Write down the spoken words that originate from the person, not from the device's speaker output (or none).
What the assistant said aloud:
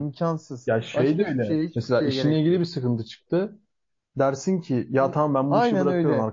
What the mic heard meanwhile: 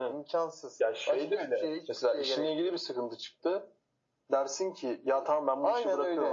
none